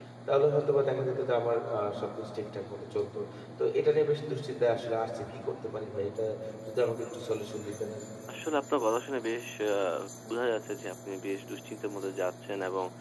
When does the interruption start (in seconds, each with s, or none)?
none